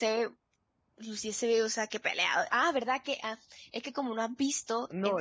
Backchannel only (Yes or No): No